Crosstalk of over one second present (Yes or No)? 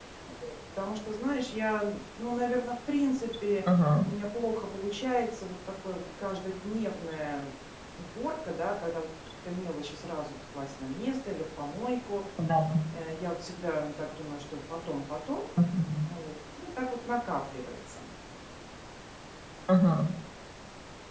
No